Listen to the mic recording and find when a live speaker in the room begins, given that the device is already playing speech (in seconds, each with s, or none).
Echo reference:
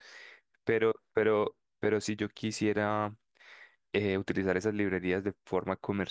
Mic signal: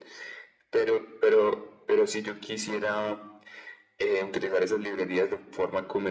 none